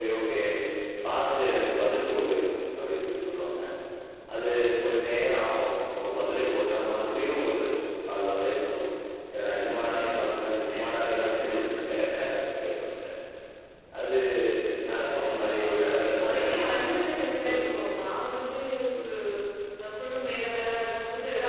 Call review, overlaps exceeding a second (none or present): present